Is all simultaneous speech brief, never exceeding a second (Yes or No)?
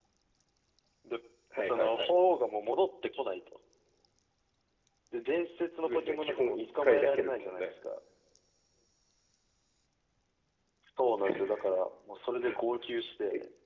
No